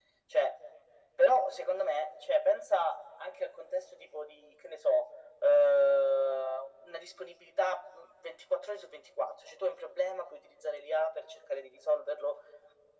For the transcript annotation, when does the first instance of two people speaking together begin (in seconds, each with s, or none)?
none